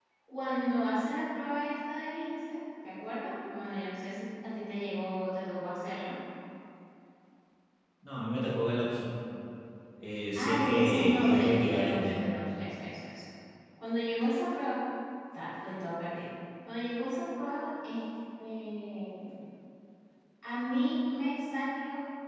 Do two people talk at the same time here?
Yes, from 10.4 s

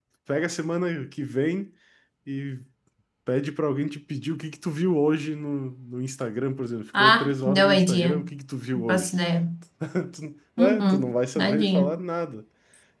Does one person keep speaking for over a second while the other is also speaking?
Yes, from 6.9 s

